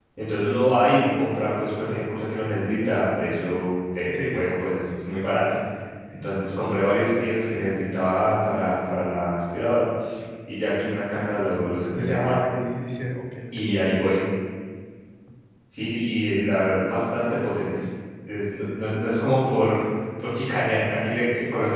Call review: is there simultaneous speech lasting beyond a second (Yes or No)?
No